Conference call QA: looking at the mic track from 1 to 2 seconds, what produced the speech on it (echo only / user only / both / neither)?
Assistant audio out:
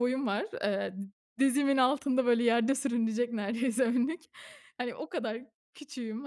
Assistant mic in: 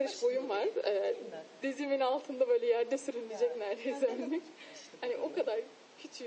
both